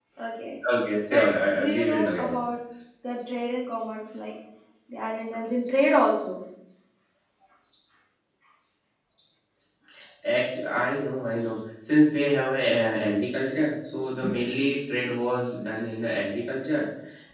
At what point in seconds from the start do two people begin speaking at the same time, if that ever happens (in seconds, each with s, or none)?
1.1 s